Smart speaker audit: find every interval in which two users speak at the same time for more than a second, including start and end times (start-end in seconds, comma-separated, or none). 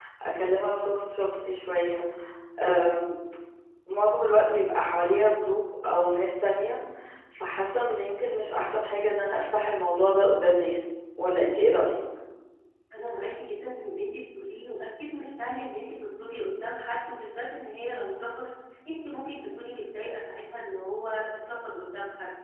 none